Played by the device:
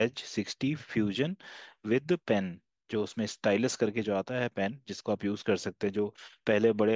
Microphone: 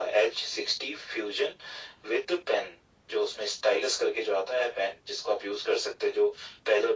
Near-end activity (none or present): none